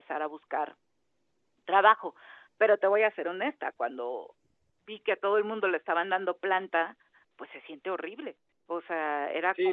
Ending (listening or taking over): taking over